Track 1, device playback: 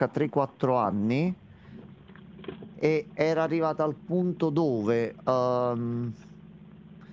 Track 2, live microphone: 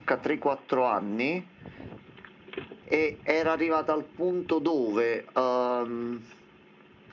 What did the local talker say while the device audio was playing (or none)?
none